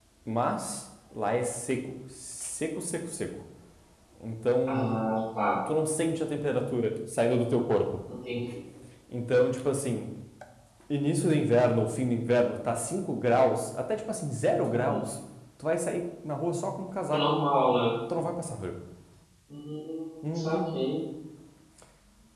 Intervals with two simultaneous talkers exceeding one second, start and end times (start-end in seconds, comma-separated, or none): none